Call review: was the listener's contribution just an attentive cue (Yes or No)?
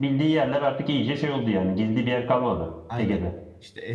No